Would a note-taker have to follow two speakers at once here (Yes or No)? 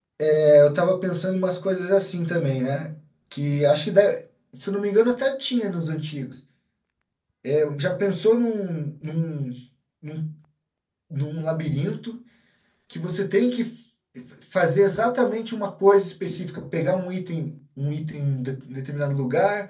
No